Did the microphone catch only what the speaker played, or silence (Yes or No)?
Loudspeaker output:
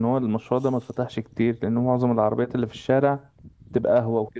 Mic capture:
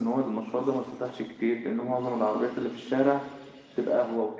Yes